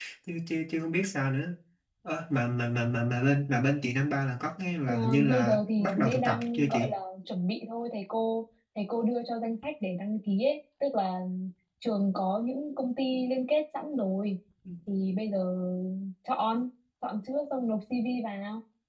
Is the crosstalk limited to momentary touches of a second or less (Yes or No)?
No